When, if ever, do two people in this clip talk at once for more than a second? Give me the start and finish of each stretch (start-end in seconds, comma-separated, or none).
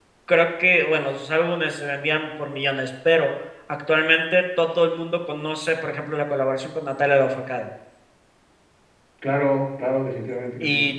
none